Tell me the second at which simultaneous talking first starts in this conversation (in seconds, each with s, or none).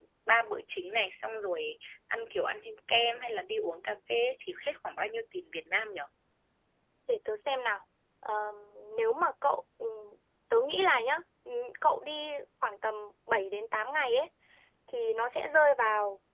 none